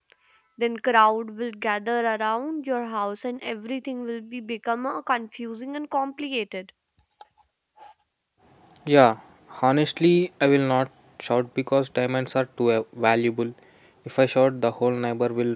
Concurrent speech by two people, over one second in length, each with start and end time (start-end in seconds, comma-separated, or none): none